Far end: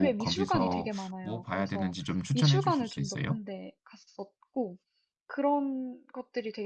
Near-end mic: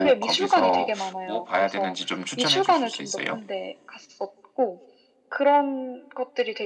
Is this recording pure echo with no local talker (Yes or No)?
Yes